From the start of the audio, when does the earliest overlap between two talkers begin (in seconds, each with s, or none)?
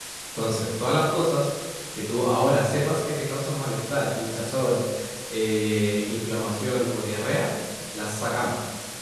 none